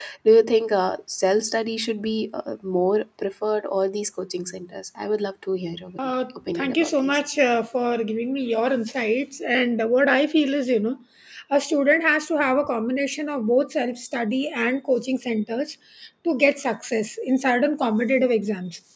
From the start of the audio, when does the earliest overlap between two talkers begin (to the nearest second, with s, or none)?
6 s